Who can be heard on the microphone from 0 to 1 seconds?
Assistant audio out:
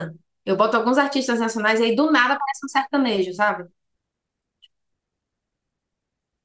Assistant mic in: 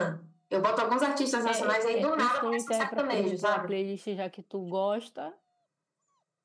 echo only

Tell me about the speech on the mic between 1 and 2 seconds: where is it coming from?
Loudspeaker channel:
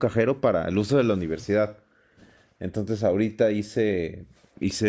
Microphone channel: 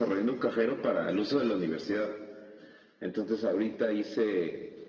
echo only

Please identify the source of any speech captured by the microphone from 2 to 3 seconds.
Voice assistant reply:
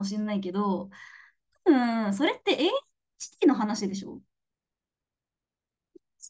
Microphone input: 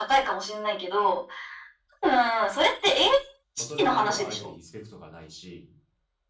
echo only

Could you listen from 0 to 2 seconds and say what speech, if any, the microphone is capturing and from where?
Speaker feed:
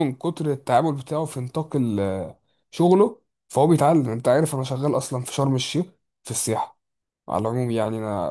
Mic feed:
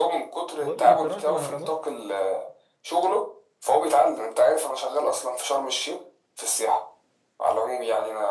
both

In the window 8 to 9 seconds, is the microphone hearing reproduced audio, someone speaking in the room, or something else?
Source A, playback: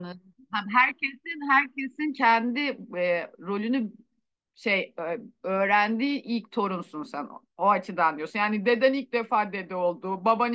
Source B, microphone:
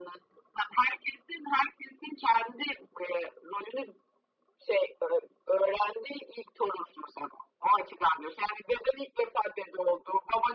echo only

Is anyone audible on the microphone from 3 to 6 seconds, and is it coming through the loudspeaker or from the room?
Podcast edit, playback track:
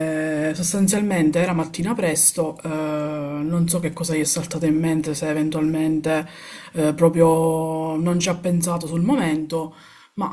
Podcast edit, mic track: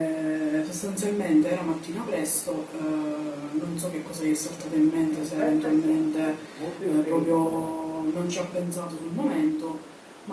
both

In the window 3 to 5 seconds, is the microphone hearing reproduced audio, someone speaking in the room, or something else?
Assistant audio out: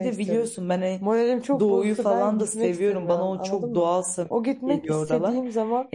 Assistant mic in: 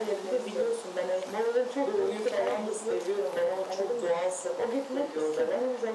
echo only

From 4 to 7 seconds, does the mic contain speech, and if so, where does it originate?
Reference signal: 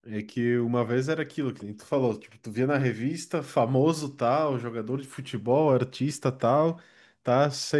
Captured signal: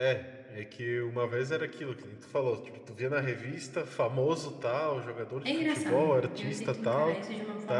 both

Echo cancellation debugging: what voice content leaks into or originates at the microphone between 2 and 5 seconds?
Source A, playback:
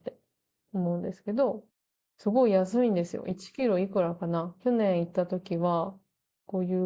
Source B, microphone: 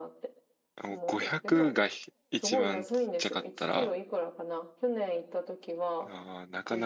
both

